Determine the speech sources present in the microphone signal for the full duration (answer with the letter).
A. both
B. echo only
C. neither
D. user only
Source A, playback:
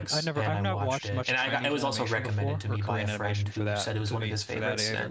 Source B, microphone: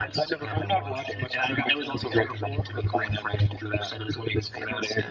B